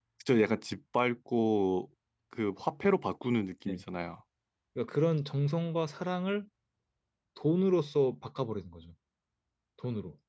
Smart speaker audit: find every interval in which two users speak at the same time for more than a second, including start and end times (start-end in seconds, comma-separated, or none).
none